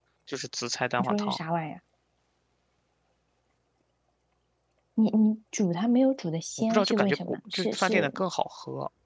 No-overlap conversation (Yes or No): No